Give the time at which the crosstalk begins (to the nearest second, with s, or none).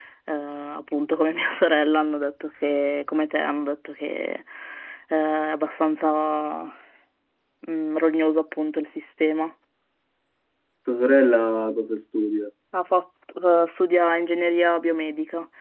none